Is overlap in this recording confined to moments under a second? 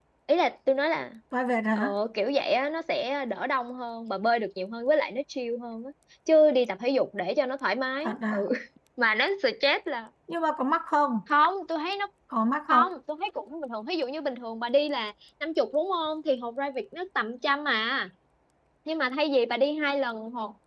Yes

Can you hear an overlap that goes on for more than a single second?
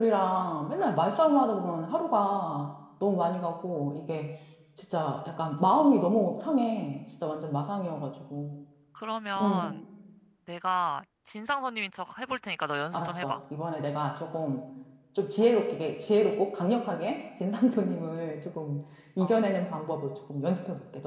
No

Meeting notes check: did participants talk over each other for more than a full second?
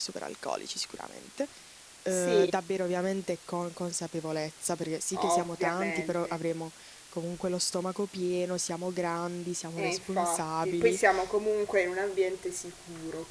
Yes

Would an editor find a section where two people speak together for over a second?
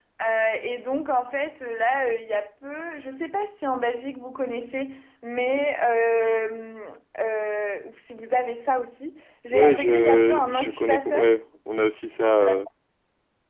Yes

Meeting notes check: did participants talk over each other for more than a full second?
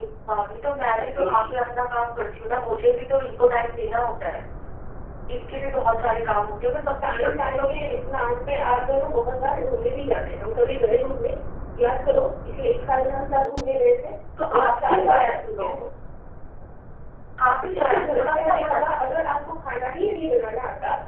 Yes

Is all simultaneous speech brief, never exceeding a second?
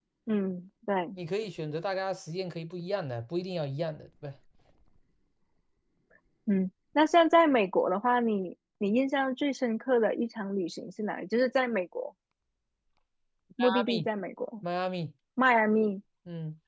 Yes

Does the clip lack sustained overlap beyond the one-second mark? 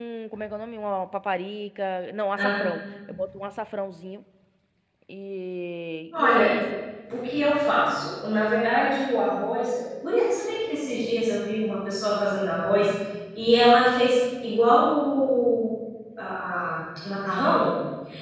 Yes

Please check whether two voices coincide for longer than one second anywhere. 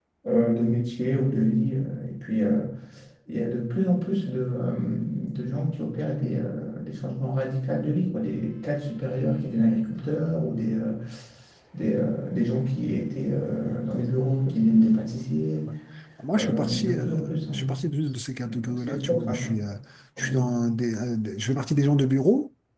Yes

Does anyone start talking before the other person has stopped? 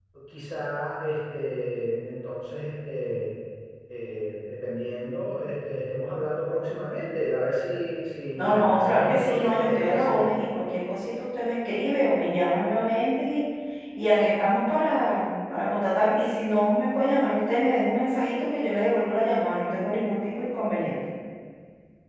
Yes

